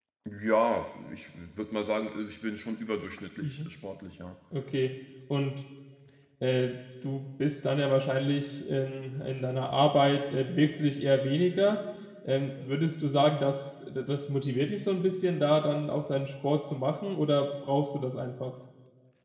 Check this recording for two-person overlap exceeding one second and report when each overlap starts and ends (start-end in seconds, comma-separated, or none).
none